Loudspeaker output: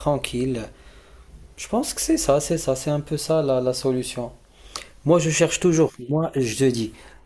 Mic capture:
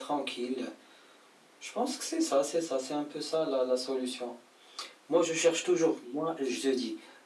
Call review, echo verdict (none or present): present